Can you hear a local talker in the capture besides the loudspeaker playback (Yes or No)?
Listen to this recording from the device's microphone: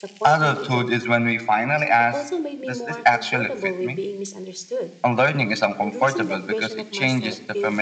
Yes